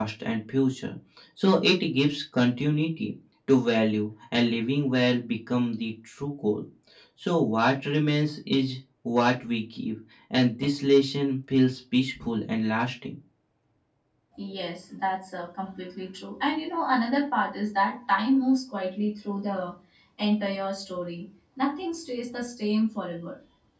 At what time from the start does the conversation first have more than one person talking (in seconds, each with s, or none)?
none